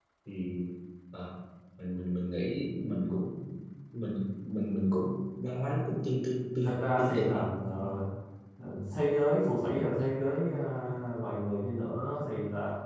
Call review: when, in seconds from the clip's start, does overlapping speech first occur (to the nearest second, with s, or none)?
7 s